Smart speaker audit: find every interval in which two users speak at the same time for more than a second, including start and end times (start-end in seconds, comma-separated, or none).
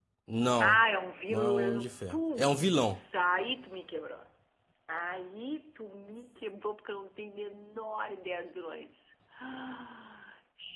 1.3-3.0